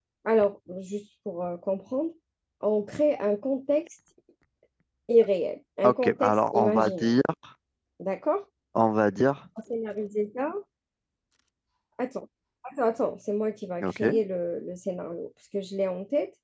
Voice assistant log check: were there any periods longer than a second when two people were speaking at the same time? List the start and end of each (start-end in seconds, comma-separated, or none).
5.8-7.2